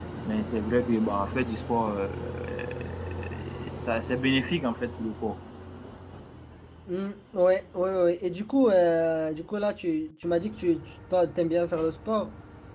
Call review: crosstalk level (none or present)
none